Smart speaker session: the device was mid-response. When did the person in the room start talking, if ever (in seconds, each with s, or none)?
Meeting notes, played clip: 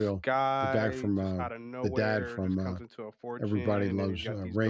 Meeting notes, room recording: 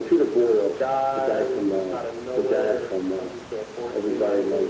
none